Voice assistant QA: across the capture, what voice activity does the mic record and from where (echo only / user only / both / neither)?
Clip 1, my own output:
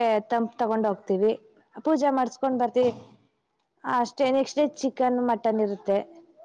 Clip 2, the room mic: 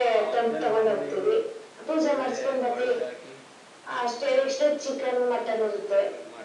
both